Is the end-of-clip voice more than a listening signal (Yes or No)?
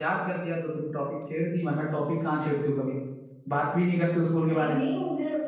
Yes